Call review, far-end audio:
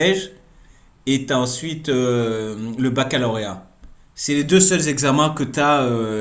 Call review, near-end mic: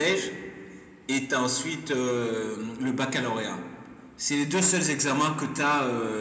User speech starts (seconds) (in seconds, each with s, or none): none